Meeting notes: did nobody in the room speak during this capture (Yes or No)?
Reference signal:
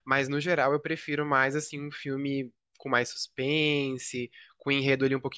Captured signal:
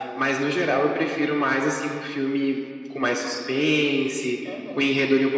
No